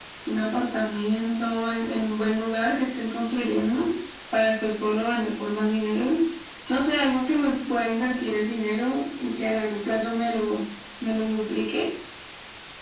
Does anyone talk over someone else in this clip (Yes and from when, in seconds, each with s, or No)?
No